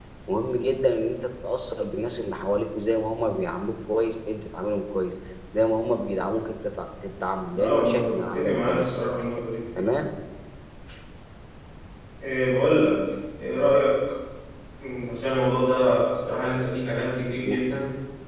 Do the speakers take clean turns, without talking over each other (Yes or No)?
No